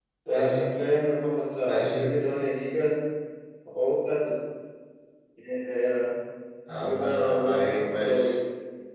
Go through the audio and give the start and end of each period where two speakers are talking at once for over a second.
6.8-8.3

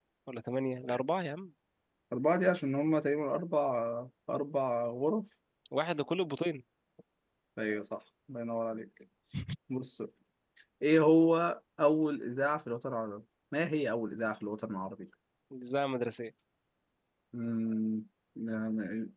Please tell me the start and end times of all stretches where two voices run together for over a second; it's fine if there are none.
none

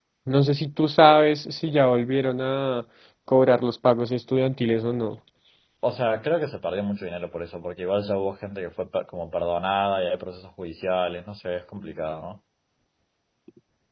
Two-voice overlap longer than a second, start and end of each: none

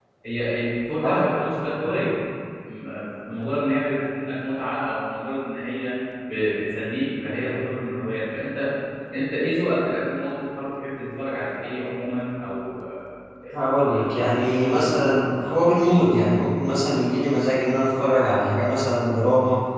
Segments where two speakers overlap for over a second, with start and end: 13.9-15.8

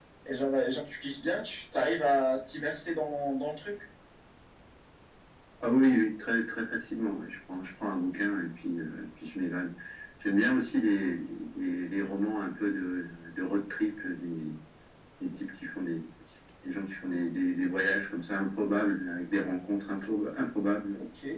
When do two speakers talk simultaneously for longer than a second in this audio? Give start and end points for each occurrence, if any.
none

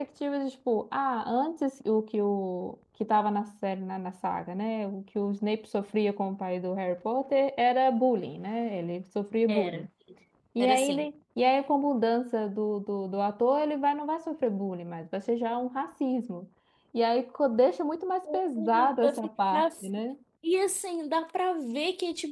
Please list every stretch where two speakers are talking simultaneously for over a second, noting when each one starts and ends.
18.6-19.9

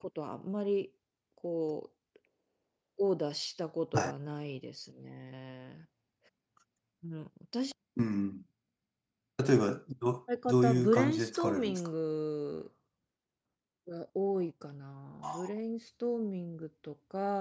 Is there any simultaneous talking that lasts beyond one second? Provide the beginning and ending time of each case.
10.5-11.9

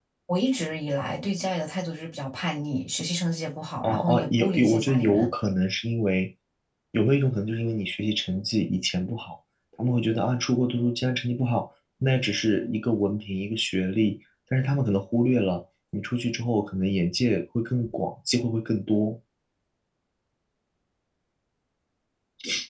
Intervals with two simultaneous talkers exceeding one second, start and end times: 3.8-5.3

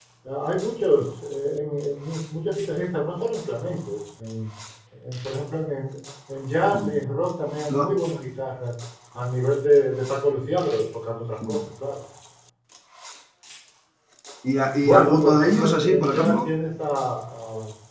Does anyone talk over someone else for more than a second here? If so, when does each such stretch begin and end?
14.8-16.5

